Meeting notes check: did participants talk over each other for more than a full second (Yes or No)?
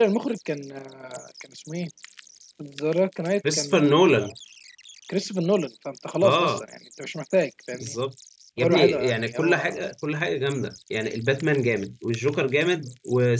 Yes